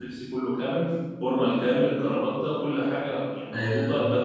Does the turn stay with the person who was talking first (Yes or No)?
Yes